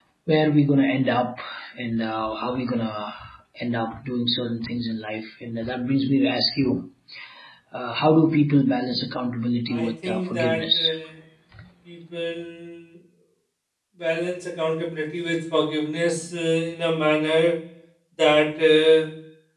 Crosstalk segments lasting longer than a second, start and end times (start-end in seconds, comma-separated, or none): 9.7-11.0